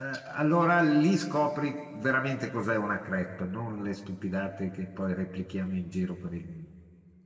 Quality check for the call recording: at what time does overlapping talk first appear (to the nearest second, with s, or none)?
none